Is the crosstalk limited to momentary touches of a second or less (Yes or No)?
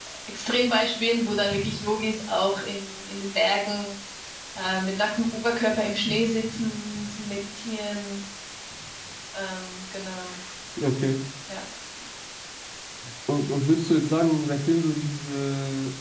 Yes